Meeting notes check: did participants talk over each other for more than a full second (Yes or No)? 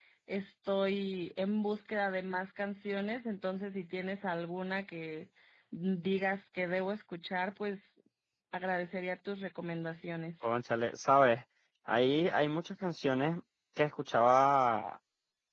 No